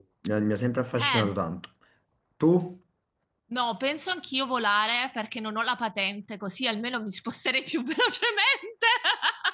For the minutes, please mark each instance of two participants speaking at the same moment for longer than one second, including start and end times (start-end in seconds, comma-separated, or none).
none